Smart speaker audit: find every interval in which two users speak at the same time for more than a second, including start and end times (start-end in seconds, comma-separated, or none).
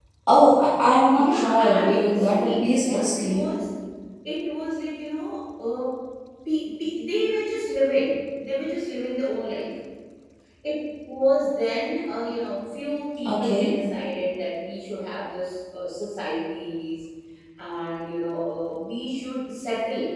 1.1-3.5